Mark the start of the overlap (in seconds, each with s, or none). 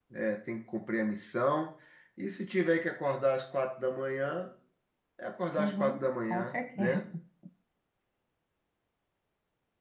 5.6 s